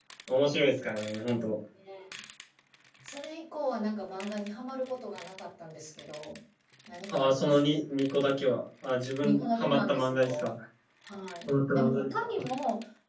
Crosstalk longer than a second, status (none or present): present